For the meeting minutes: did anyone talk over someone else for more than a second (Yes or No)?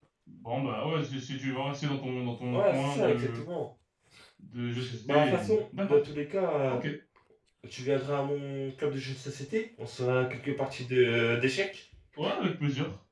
Yes